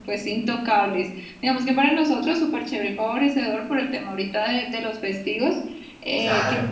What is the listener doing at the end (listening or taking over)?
listening